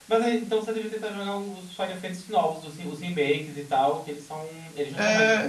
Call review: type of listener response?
taking over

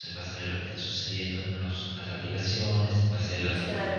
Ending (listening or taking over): listening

